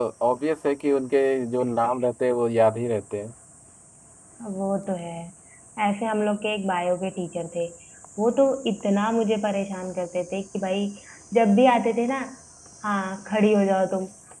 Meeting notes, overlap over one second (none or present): none